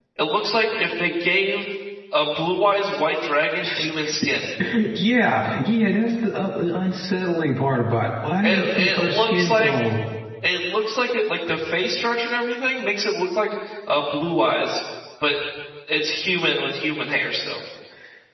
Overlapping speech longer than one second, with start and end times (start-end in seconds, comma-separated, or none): 8.4-9.7